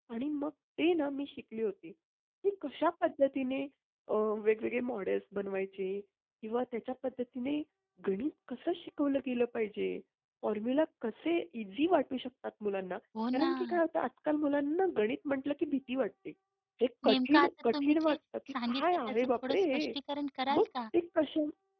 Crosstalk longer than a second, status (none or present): present